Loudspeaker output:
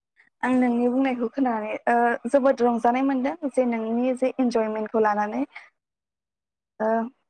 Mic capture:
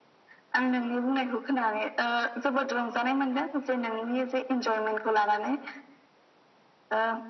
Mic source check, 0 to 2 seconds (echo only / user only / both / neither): echo only